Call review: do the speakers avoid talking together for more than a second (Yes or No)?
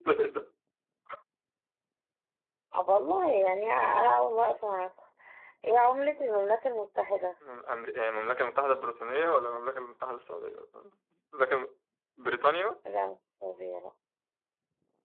Yes